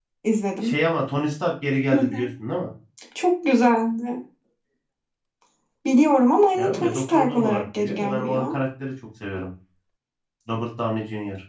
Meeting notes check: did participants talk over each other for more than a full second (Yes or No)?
Yes